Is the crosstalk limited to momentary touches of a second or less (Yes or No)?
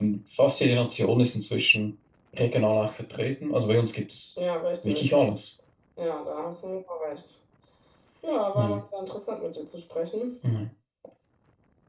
Yes